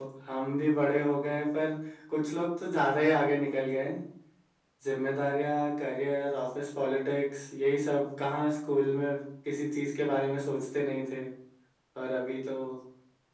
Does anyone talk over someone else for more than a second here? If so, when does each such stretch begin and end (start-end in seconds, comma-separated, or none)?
none